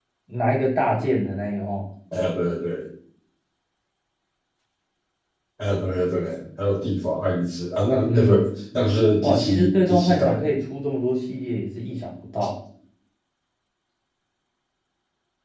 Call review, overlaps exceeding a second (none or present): present